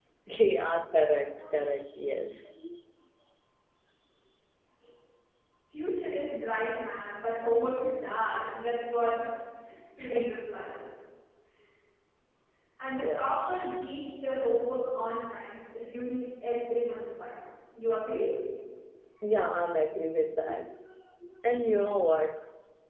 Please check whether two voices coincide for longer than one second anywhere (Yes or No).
No